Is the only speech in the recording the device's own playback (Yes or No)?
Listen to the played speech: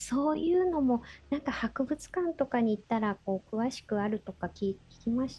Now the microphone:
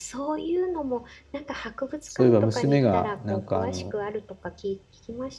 No